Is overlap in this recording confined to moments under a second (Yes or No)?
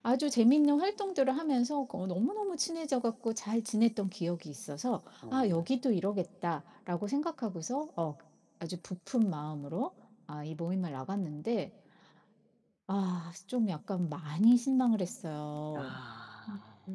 Yes